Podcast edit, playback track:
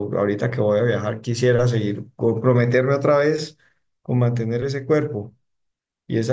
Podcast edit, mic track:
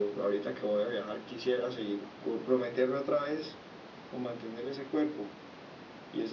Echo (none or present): present